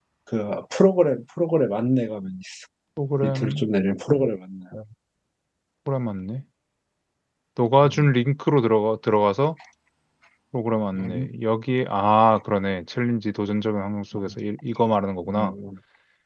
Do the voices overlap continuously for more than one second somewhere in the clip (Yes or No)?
No